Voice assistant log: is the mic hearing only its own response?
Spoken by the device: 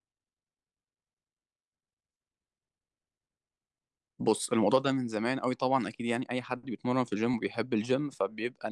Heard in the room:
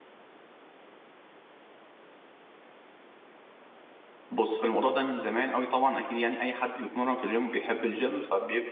Yes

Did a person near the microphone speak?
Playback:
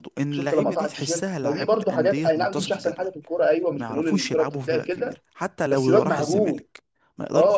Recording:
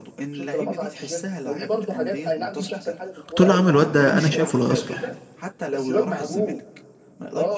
Yes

